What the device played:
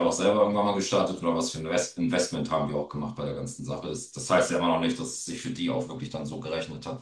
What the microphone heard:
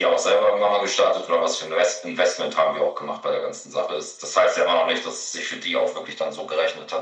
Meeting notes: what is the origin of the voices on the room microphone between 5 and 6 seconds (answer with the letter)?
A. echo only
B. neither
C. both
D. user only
A